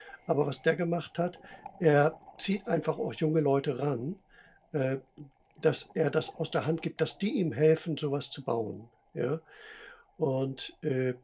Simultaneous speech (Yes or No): No